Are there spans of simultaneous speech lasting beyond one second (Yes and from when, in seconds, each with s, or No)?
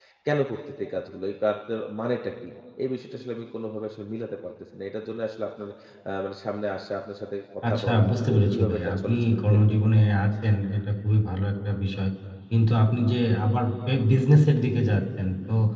Yes, from 7.6 s